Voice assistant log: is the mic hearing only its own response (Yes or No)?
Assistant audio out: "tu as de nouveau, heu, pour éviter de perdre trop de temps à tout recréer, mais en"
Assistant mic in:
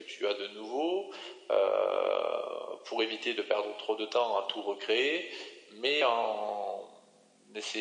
Yes